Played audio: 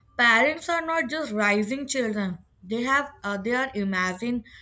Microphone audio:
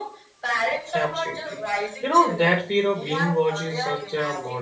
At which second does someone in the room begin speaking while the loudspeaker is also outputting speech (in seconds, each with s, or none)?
0.9 s